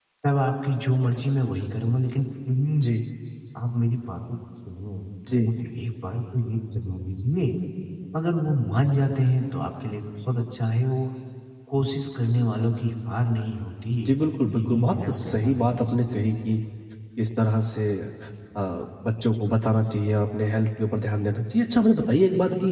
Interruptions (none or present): present